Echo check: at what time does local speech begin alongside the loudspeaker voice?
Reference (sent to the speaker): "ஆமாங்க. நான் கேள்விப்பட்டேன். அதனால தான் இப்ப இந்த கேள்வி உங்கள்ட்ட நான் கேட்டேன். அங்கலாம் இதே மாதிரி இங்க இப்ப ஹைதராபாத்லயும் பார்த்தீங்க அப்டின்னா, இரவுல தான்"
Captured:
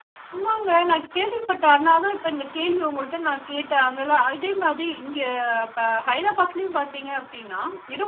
none

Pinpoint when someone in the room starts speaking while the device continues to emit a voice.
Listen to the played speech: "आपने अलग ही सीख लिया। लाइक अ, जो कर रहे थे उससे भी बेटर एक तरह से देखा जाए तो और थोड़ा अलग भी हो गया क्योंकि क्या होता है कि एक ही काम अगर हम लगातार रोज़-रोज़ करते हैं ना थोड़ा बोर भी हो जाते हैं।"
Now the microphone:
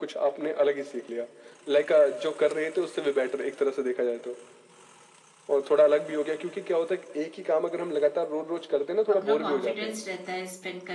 9.1 s

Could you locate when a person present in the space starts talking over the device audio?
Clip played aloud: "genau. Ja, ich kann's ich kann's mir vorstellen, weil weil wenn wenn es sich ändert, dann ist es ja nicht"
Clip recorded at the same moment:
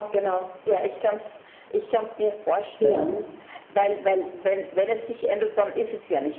2.8 s

